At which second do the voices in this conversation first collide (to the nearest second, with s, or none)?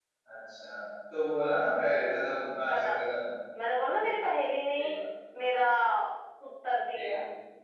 2 s